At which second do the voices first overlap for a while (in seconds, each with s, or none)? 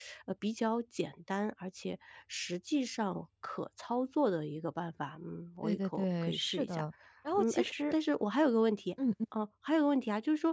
5.6 s